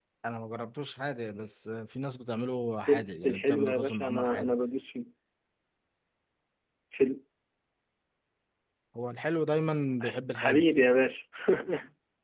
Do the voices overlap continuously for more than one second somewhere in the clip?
Yes, from 2.9 s

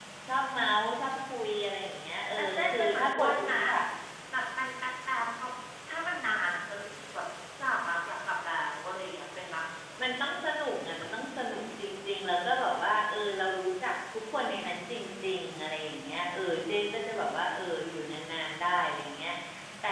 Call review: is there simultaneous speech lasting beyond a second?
Yes, from 2.4 s

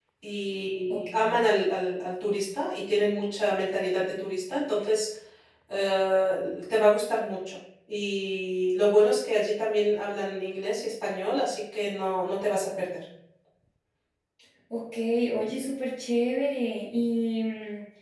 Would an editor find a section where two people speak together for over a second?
No

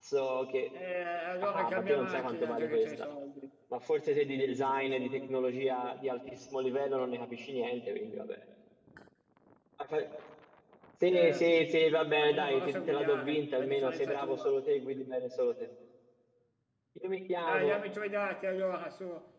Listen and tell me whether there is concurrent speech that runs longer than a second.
Yes, from 1.4 s

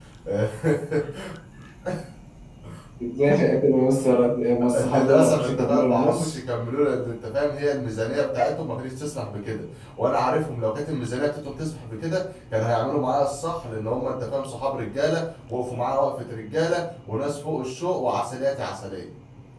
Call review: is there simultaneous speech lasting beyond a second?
Yes, from 4.7 s

